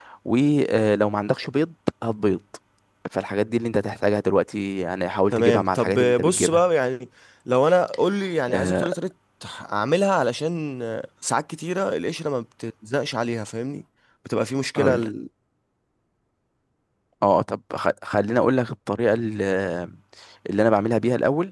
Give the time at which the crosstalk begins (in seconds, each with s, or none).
5.3 s